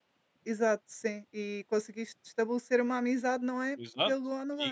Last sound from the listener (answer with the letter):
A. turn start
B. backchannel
A